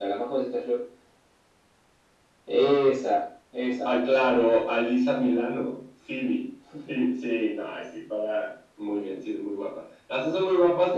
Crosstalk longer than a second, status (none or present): none